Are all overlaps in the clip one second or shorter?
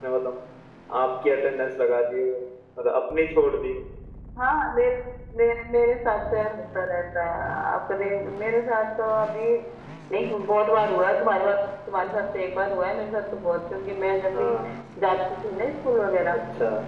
Yes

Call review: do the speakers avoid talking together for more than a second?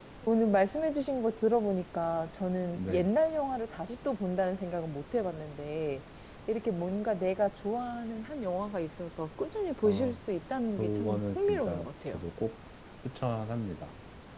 No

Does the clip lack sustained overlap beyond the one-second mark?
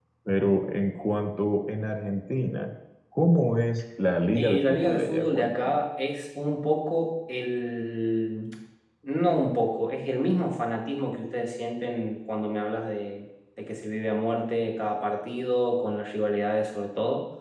No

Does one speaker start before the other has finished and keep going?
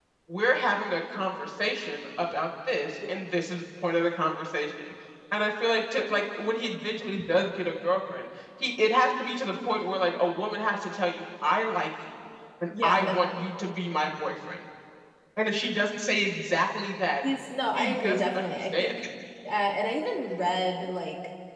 Yes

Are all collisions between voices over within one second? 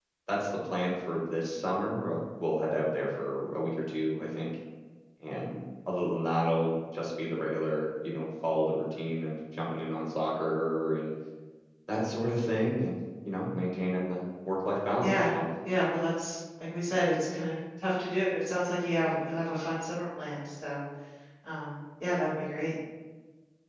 Yes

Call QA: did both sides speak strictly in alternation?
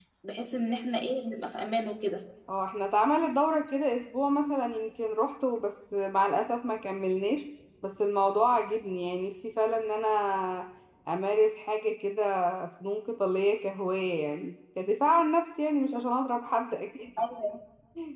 Yes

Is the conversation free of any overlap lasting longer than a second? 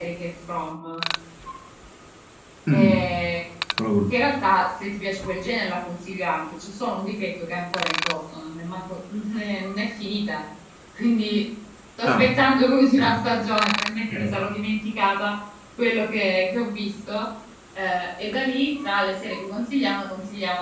Yes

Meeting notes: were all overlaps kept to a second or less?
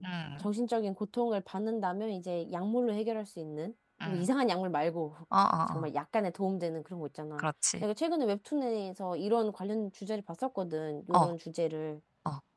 Yes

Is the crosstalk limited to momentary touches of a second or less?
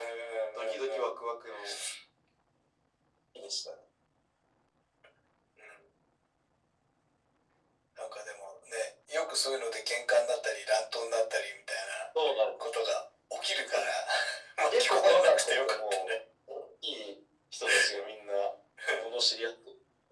No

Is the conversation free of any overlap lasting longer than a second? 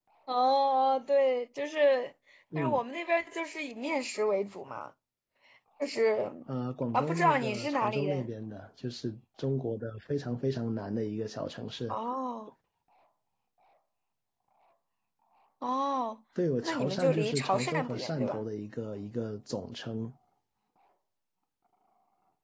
No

